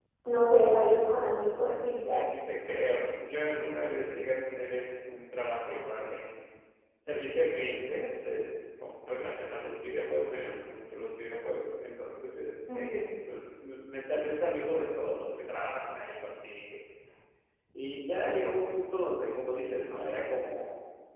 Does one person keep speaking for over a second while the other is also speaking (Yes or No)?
No